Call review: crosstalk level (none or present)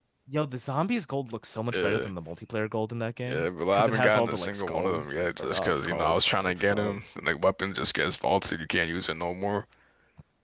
present